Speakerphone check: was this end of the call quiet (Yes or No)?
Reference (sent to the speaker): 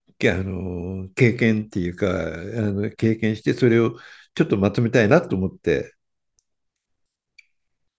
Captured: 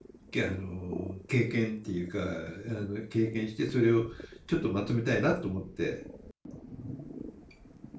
Yes